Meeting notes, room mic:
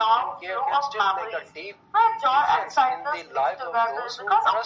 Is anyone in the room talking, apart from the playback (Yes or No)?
No